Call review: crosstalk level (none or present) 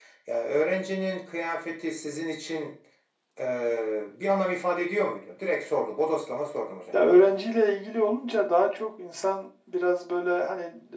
none